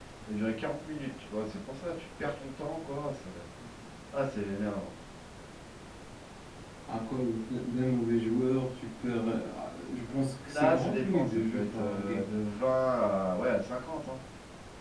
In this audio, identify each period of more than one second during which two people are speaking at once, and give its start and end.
10.4-12.3

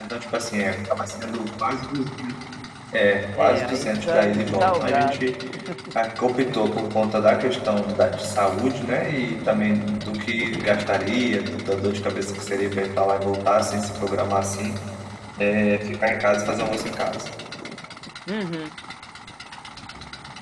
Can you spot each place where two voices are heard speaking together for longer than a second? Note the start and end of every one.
3.4-5.2

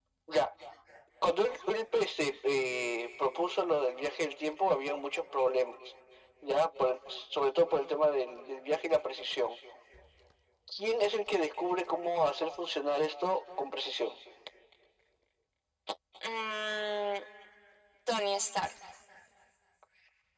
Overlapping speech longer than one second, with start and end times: none

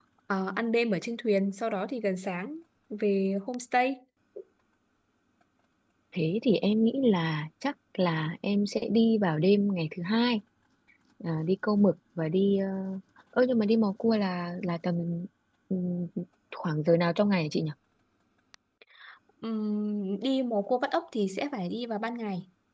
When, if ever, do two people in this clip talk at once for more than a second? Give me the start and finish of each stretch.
none

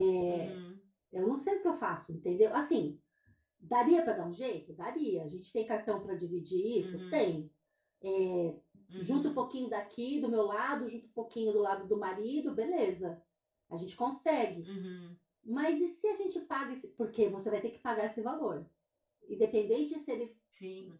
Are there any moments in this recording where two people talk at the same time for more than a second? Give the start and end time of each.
none

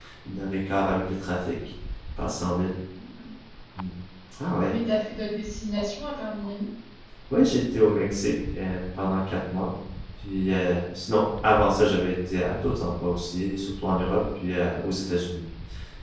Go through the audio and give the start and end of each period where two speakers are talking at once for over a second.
none

